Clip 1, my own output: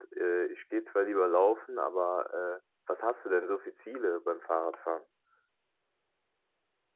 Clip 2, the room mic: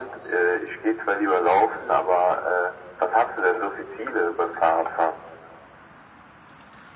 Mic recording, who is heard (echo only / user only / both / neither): echo only